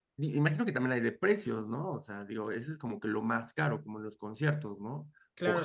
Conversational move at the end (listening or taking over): taking over